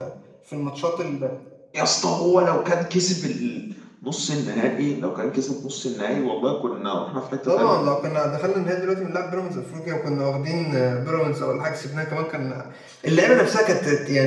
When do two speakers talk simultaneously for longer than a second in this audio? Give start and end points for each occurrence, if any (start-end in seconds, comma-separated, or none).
none